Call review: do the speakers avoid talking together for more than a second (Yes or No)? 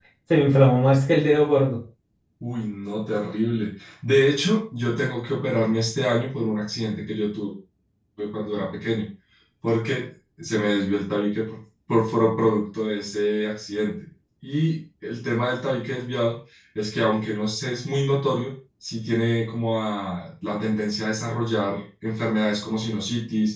Yes